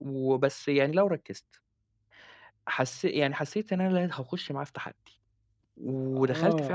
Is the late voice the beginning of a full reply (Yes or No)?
Yes